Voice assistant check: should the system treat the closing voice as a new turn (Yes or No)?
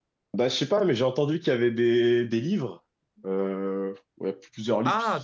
Yes